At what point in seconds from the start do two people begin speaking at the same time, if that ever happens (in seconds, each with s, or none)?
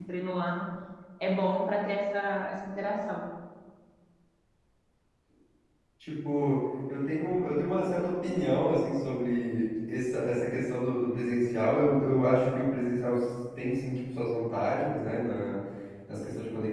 none